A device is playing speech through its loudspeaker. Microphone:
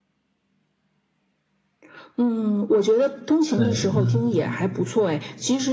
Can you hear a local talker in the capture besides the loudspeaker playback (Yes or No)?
Yes